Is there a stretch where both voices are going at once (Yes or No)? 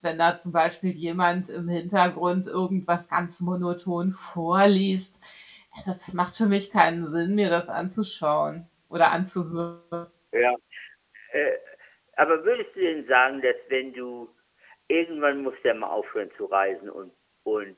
No